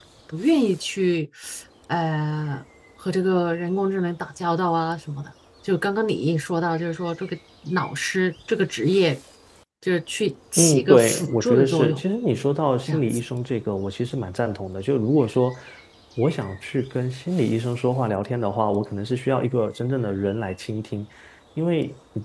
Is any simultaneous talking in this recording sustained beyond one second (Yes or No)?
Yes